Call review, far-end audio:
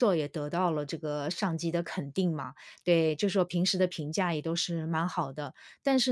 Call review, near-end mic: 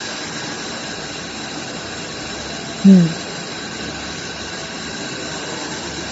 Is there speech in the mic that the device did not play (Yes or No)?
Yes